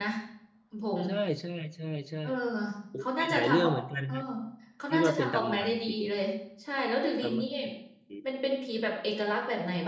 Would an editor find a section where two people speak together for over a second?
Yes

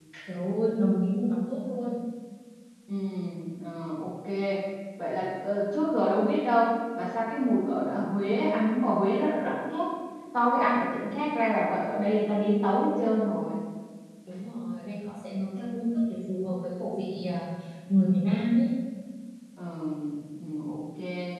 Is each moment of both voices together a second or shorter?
Yes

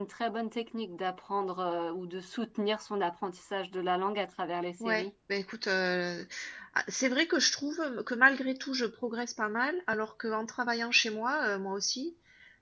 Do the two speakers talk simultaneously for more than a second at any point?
No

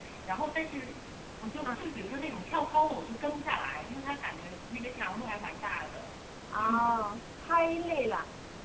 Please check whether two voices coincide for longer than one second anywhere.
No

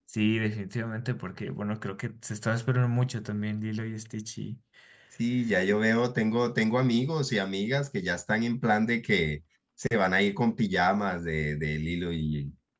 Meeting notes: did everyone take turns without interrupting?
Yes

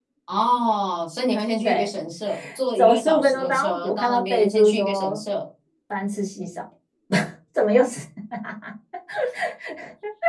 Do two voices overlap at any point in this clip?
Yes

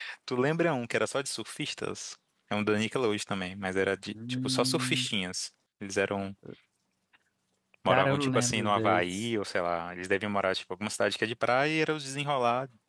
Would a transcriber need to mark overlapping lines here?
Yes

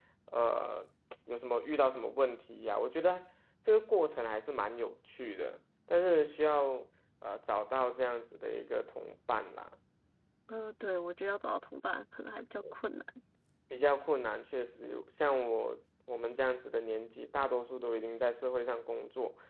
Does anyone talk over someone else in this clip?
No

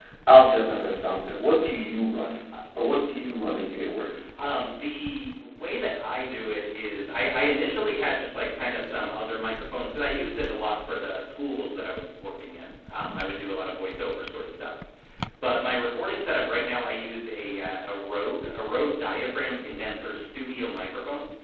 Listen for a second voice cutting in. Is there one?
No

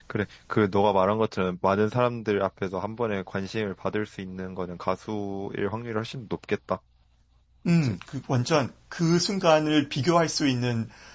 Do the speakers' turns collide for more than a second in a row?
No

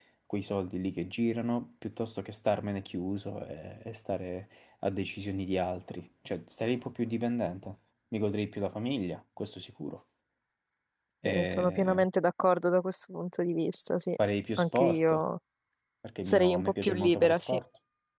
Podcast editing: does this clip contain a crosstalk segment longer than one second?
Yes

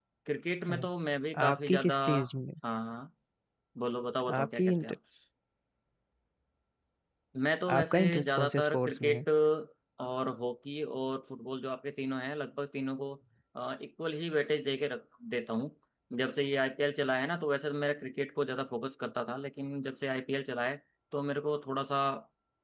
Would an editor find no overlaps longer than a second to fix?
No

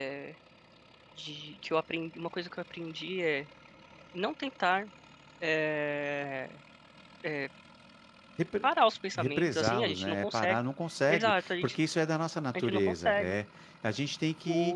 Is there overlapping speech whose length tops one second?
Yes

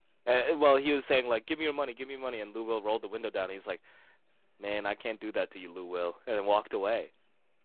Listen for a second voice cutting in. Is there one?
No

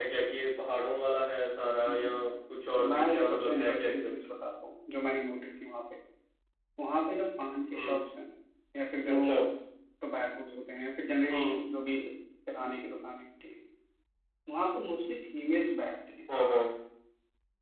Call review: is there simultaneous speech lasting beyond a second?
Yes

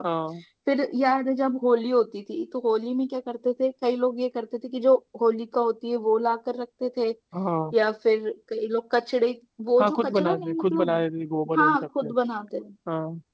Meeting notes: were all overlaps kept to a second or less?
No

